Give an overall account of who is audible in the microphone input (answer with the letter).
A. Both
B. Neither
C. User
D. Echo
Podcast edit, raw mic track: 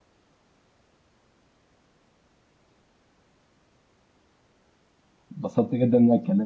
C